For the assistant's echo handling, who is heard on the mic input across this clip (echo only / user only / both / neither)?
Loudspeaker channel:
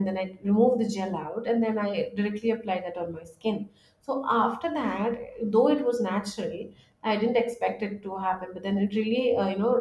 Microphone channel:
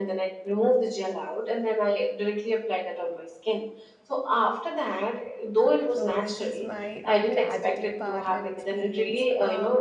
both